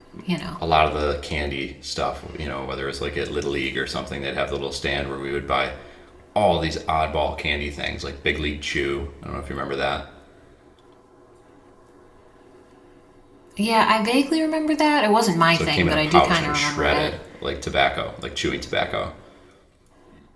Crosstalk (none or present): present